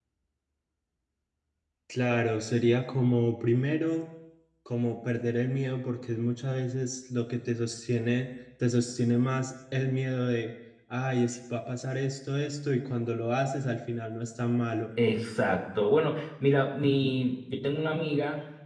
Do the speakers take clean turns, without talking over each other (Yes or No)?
Yes